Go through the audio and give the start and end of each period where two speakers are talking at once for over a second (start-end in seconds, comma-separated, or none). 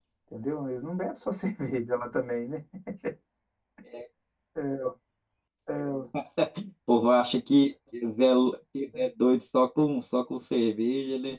none